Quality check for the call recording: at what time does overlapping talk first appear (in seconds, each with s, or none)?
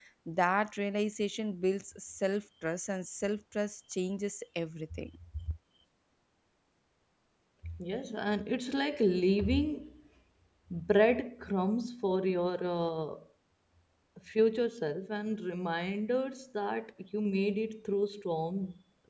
none